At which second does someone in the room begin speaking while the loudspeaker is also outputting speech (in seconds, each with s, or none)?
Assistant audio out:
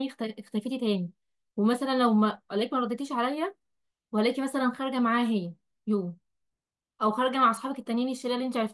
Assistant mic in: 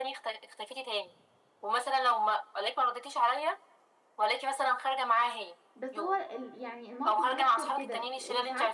5.7 s